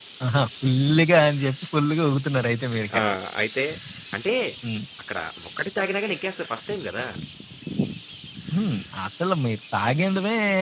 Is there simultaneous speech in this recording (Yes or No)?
No